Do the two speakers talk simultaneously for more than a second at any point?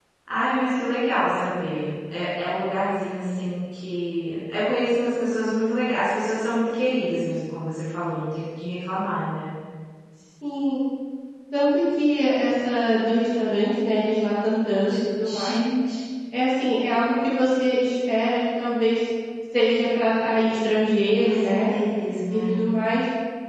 No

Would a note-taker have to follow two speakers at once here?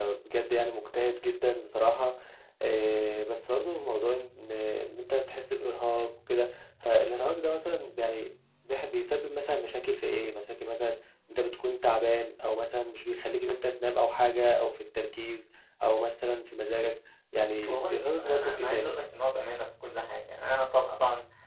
Yes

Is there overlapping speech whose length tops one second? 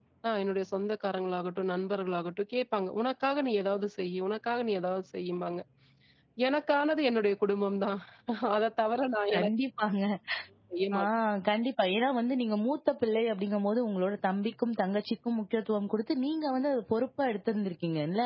No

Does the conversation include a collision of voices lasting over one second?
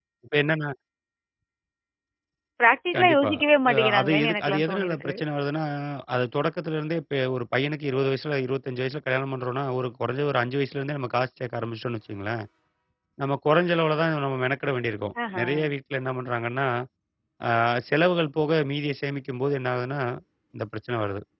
Yes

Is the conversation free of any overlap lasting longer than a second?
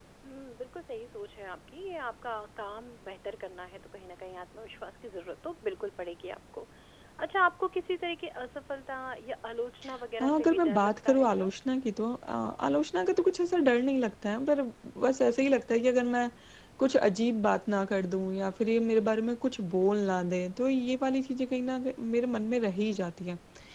No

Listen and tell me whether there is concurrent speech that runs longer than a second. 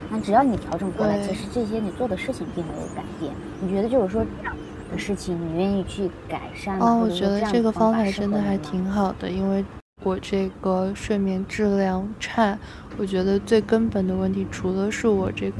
Yes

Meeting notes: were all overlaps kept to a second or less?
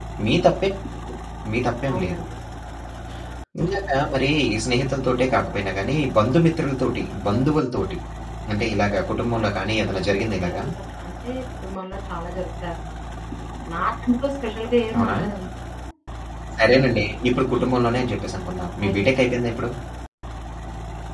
Yes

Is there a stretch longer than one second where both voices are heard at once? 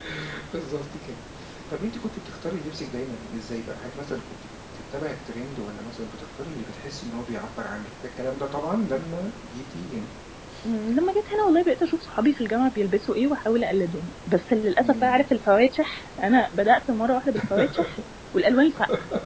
No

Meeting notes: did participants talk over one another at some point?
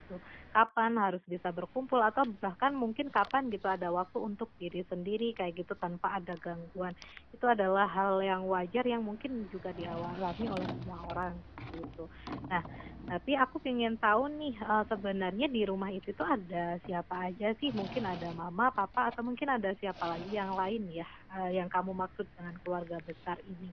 No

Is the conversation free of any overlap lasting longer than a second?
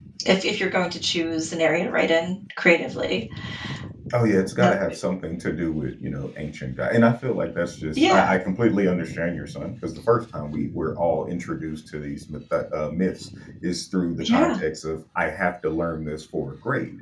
Yes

